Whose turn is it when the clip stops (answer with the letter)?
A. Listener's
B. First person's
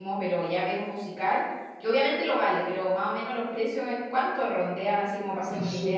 A